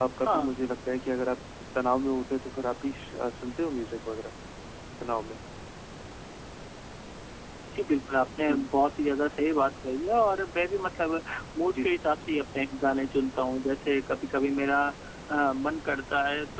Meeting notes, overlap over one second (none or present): none